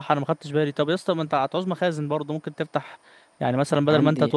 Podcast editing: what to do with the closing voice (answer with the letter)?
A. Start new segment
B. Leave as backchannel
B